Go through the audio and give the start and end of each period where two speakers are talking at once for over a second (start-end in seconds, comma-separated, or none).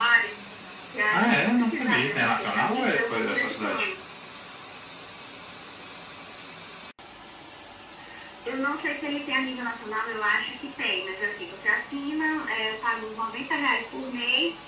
1.1-3.9